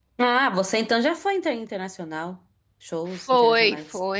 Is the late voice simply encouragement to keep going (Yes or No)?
No